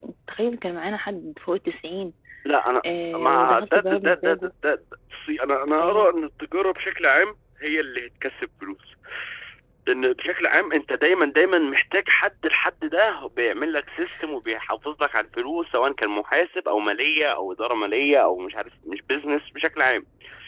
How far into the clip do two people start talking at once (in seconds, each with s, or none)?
3.1 s